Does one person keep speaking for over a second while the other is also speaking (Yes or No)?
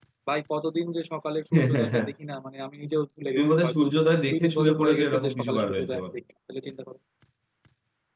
Yes